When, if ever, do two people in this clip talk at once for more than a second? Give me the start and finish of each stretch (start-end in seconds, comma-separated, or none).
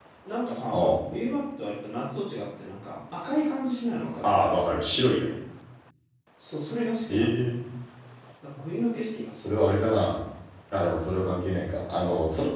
none